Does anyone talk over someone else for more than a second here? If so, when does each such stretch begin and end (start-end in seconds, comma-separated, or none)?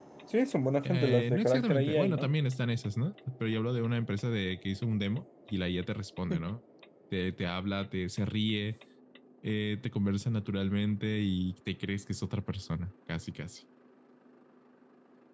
0.8-2.3